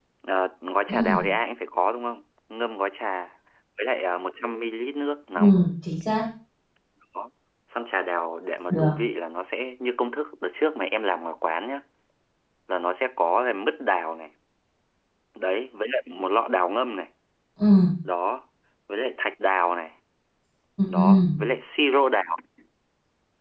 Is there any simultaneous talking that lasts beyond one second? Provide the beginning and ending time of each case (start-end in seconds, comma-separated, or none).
none